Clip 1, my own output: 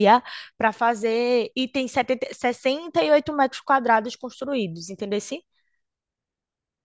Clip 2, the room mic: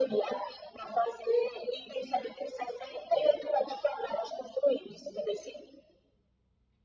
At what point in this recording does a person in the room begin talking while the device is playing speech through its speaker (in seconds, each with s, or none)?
none